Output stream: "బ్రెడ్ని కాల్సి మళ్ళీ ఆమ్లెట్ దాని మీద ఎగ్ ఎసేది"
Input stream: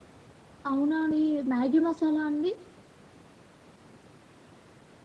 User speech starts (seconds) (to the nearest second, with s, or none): 1 s